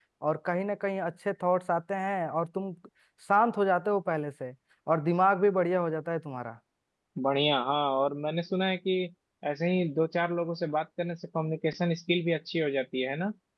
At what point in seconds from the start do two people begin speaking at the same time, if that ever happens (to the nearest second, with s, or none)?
none